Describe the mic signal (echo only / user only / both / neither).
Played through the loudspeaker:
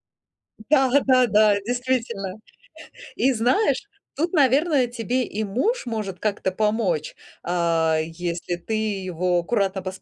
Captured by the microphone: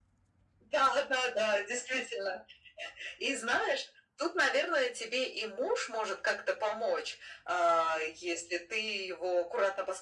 echo only